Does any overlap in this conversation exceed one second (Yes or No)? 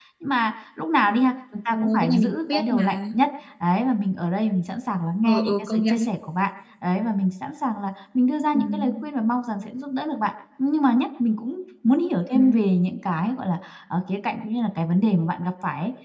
Yes